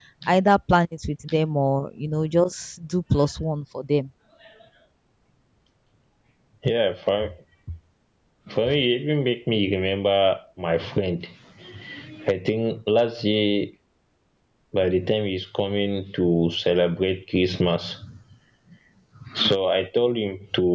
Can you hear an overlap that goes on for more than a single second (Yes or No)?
No